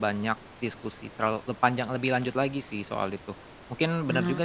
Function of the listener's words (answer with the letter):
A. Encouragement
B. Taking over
A